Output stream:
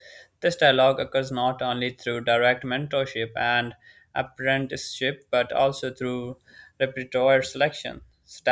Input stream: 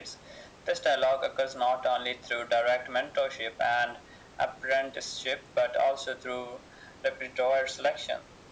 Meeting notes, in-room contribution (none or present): none